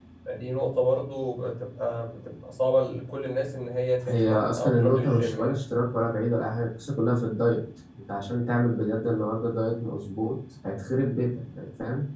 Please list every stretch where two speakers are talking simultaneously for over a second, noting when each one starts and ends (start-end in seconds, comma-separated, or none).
4.1-5.6